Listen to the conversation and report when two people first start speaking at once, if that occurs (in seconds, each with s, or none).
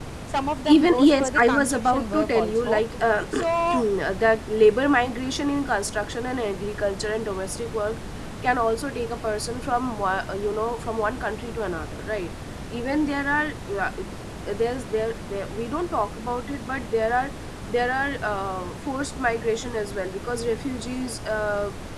0.7 s